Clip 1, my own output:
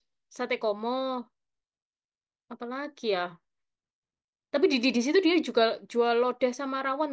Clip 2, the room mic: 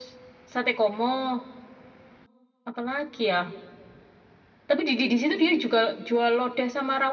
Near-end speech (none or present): none